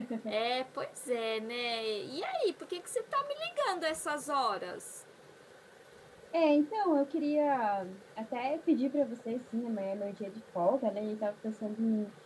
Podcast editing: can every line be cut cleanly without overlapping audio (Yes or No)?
Yes